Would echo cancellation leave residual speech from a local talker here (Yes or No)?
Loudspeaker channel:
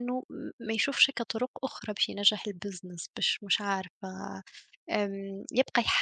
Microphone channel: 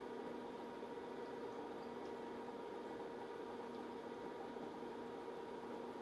No